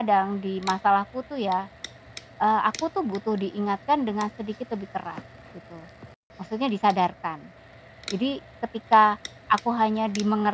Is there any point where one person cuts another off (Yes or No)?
No